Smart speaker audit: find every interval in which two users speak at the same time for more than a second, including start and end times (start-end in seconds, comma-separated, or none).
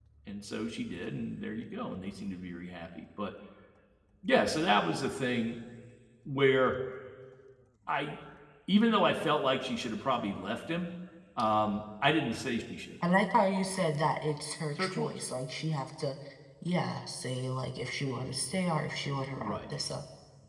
none